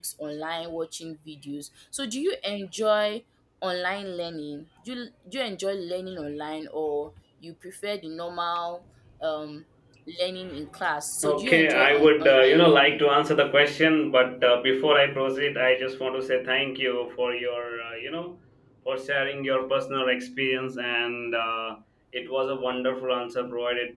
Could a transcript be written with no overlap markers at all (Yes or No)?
No